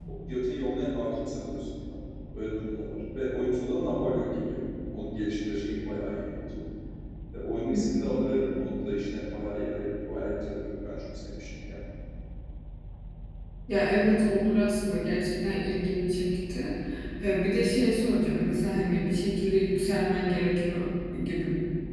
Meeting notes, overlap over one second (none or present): none